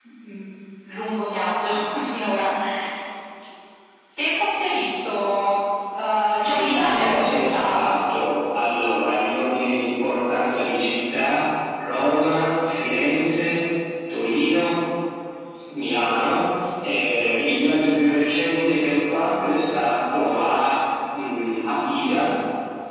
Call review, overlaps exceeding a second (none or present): present